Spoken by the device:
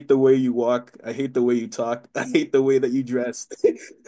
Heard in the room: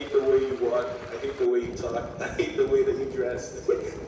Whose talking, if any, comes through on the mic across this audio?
echo only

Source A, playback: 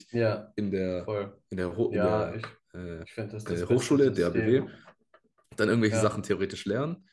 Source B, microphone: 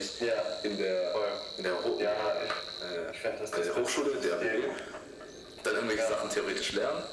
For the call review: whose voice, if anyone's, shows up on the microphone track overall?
echo only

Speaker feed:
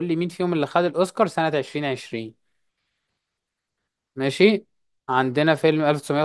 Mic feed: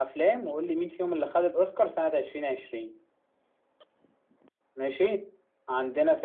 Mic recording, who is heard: echo only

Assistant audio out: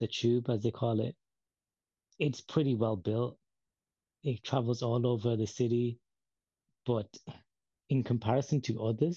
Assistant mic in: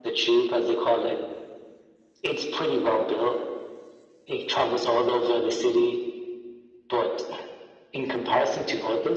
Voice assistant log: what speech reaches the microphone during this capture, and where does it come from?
echo only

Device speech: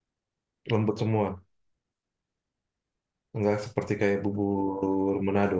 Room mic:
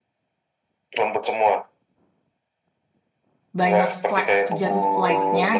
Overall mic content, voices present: both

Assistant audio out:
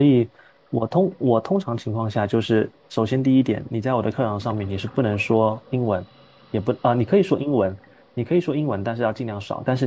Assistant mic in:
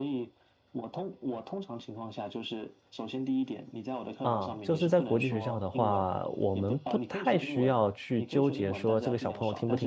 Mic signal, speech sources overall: both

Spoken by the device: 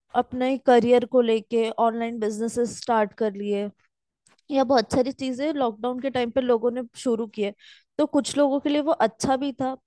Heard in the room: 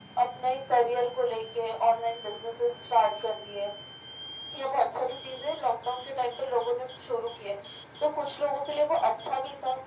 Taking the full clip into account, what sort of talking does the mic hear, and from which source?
echo only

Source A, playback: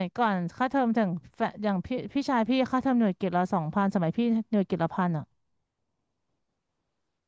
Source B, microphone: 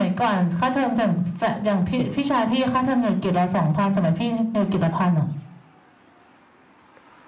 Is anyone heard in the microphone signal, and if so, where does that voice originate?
echo only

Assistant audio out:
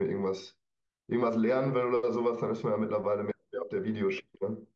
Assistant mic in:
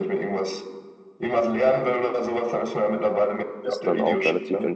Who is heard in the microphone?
both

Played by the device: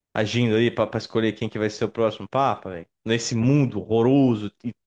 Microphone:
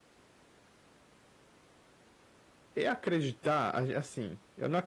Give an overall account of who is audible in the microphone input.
user only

